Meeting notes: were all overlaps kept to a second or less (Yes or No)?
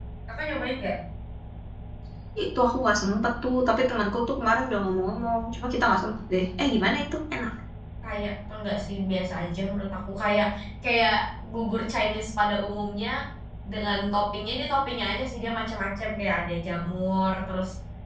Yes